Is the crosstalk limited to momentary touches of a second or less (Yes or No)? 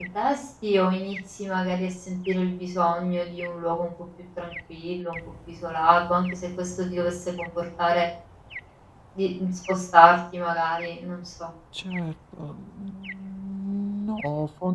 Yes